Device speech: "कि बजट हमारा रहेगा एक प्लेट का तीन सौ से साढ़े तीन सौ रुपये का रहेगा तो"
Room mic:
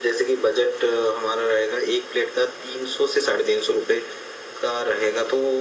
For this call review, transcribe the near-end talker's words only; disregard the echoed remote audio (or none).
none